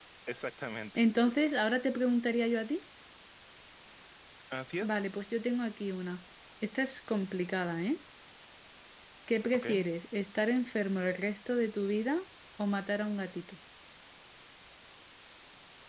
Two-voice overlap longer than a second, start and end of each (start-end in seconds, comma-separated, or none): none